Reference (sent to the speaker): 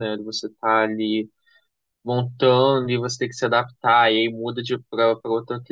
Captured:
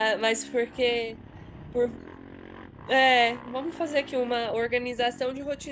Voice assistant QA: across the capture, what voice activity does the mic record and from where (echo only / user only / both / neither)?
user only